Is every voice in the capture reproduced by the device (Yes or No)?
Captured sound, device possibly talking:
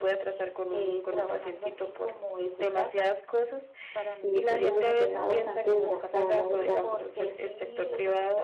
No